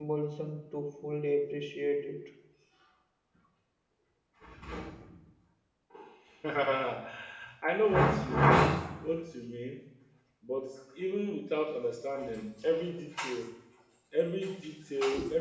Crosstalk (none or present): none